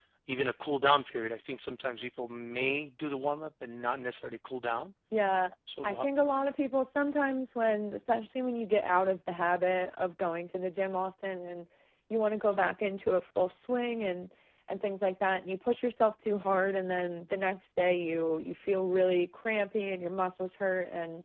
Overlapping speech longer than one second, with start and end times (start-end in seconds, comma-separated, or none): none